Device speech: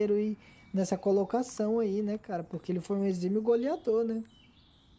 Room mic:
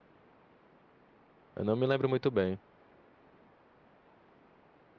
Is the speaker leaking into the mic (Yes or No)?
No